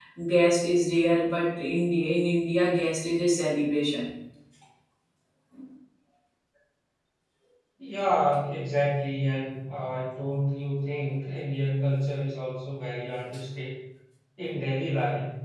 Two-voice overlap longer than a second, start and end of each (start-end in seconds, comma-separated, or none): none